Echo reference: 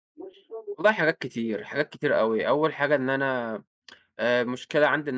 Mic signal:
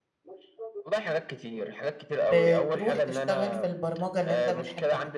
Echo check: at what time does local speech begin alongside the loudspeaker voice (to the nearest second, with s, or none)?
2 s